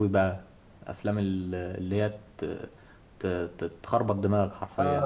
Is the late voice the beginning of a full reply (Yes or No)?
Yes